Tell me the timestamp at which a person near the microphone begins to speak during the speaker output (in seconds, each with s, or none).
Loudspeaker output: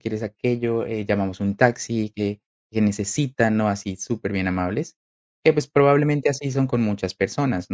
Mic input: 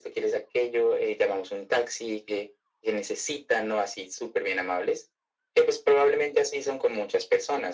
none